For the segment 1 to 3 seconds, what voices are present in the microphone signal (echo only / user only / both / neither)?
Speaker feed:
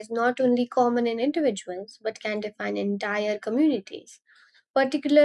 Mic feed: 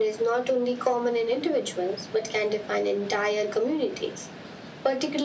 echo only